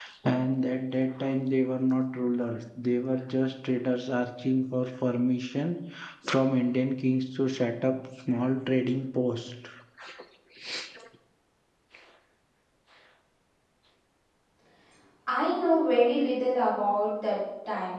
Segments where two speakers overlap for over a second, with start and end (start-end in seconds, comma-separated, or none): none